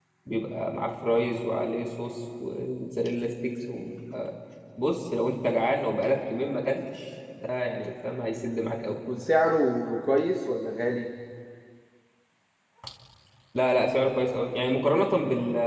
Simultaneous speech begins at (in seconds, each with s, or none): none